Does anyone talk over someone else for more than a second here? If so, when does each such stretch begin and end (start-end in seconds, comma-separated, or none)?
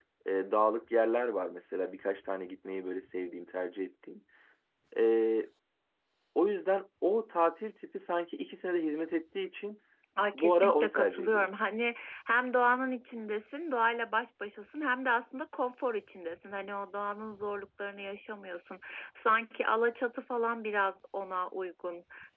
10.3-11.5